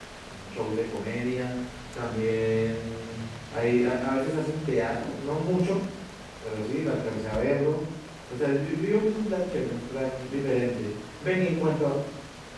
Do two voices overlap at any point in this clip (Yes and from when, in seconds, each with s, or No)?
No